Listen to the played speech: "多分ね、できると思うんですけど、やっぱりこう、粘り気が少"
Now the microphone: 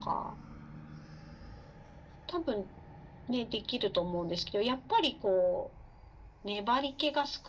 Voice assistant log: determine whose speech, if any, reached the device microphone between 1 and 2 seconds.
neither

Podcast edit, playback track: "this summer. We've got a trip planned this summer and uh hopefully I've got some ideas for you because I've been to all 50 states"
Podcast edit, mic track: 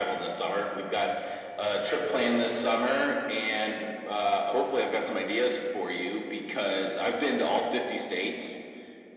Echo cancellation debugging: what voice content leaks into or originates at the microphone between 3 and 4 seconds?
echo only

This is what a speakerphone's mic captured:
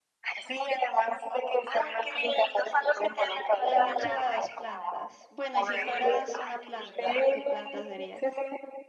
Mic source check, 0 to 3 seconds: echo only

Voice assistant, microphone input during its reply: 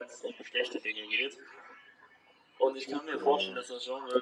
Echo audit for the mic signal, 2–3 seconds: echo only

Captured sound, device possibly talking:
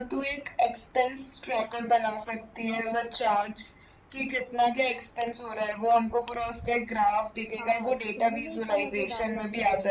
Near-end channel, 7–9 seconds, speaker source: both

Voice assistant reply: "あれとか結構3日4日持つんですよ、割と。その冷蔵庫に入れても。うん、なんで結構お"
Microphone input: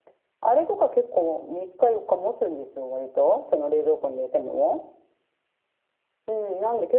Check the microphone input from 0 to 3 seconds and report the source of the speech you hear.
echo only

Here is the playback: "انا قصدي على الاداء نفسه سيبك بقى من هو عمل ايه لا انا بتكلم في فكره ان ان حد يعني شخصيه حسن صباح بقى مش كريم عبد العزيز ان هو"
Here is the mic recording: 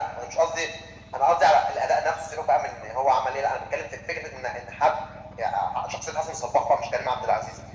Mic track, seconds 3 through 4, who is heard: echo only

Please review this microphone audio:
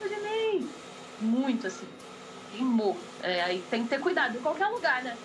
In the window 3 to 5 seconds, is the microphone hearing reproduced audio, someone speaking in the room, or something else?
echo only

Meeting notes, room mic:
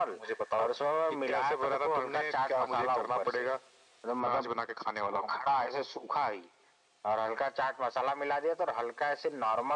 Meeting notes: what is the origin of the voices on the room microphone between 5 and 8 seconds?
echo only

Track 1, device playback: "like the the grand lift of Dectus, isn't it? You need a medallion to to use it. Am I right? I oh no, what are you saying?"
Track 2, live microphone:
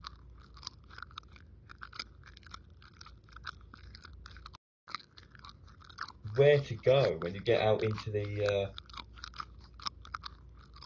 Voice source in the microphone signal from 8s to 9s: user only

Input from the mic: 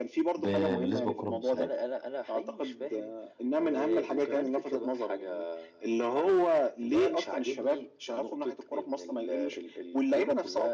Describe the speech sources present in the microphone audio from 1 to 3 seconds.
both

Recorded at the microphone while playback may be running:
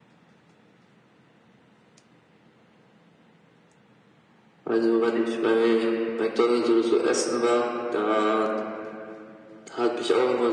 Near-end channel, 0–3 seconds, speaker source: neither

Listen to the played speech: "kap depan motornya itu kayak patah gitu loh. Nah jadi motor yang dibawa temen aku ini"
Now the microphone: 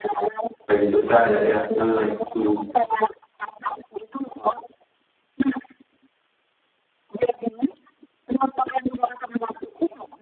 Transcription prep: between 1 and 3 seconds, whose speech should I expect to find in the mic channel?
both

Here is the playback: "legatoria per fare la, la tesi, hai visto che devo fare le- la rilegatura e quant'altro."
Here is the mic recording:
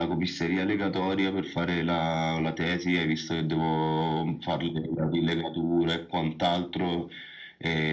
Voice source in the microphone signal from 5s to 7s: echo only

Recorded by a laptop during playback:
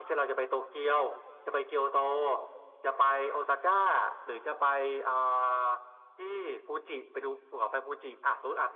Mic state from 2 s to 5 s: echo only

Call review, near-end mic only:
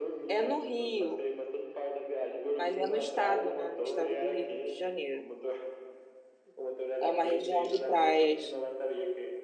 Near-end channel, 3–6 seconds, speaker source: both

